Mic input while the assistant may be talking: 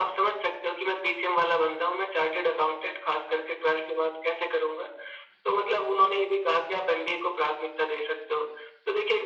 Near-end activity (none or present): none